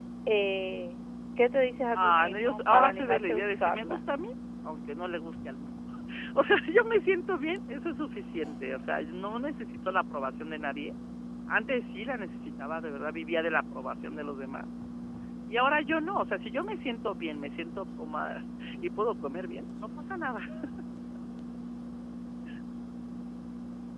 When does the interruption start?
1.9 s

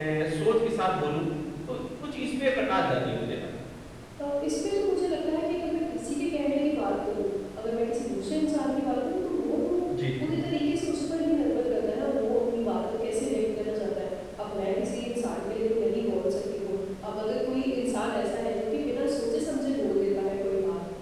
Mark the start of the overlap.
none

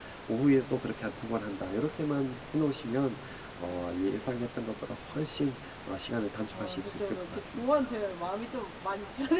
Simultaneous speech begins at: 6.5 s

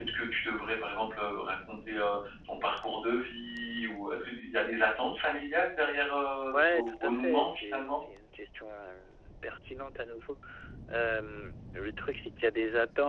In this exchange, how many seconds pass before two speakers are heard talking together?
6.5 s

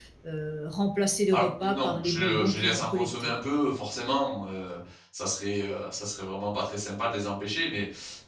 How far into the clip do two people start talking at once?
1.3 s

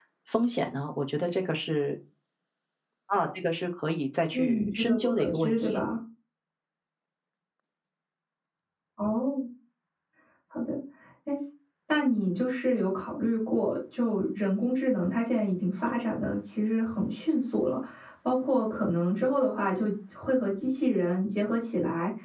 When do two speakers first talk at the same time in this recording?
4.3 s

